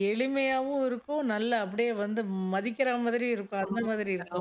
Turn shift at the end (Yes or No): Yes